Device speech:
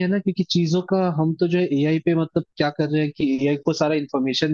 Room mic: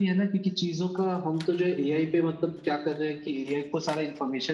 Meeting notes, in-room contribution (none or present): present